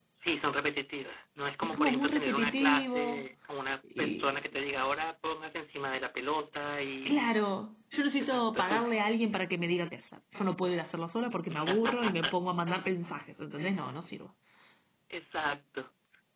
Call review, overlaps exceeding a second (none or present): present